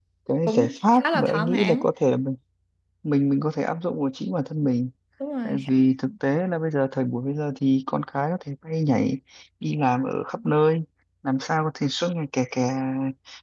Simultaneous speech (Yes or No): Yes